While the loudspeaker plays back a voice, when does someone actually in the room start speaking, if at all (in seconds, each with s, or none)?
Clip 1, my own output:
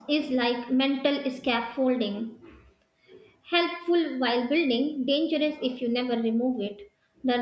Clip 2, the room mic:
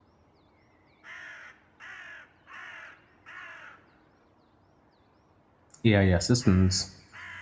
5.8 s